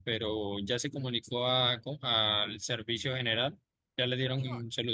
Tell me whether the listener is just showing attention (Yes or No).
No